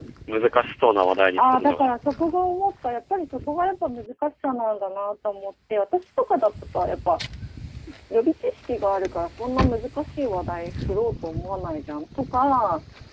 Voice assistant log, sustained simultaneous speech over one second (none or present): none